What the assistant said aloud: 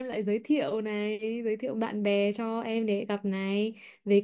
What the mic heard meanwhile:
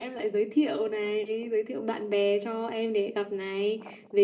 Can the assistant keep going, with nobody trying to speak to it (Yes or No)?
Yes